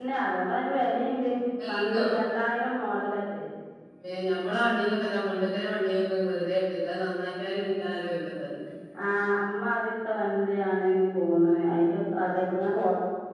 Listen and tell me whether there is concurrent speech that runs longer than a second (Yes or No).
No